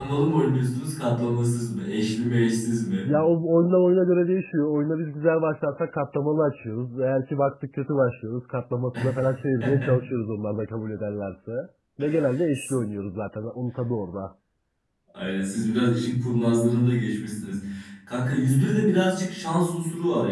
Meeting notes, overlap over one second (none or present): none